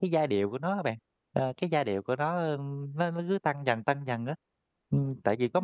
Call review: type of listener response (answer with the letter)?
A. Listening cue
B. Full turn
B